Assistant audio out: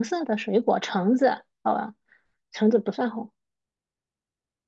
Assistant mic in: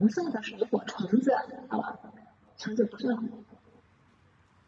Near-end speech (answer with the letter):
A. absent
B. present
A